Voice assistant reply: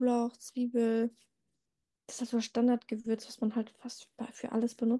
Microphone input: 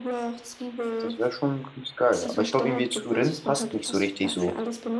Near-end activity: present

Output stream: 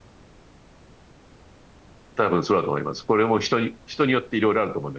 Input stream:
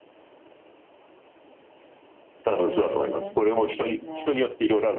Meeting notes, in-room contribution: present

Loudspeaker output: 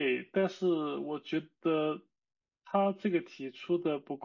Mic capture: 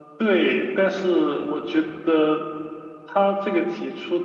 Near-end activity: none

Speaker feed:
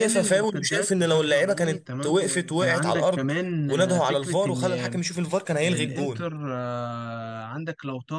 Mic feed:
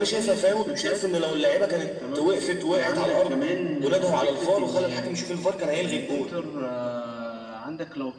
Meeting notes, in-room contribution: none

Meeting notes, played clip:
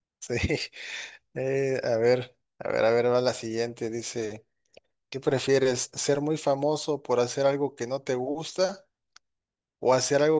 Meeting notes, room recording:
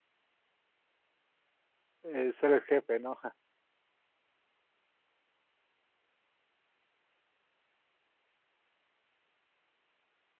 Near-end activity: present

